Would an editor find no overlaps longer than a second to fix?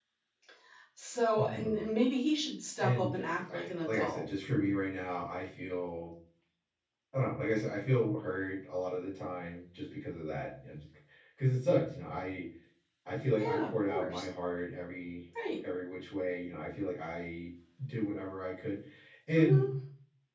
No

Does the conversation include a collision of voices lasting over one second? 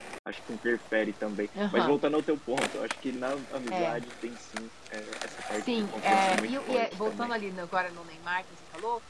Yes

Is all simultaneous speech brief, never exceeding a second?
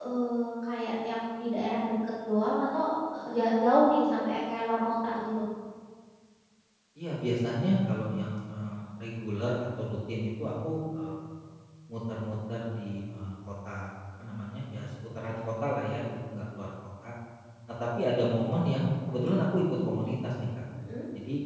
Yes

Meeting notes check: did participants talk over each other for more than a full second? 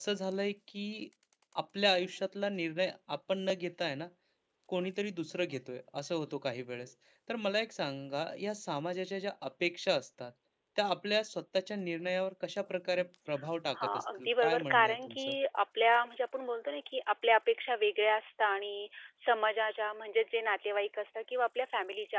Yes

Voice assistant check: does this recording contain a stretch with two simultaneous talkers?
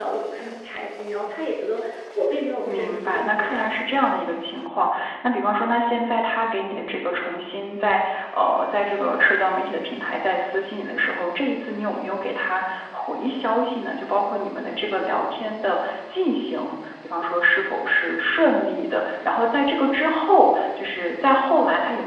Yes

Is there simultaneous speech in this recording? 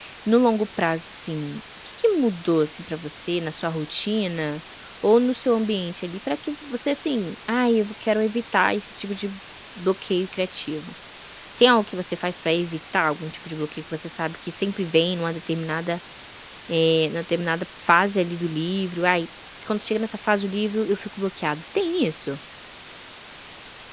No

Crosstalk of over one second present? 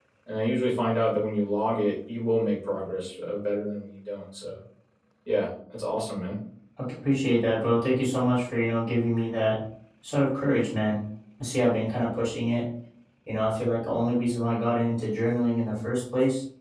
No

